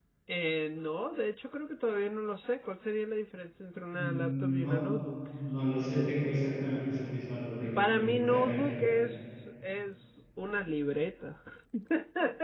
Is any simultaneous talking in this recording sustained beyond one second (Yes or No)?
Yes